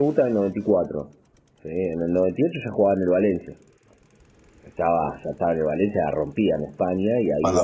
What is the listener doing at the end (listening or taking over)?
taking over